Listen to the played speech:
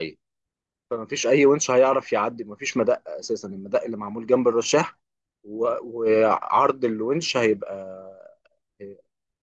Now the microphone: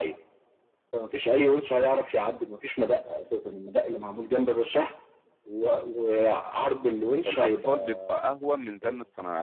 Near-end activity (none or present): present